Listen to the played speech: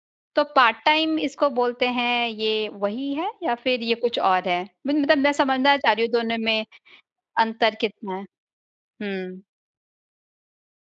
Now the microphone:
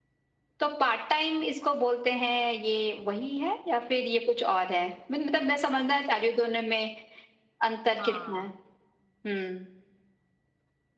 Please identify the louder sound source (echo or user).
echo